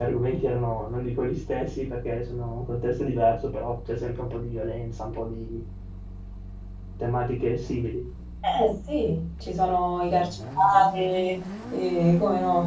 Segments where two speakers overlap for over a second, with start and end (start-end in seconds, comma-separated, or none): none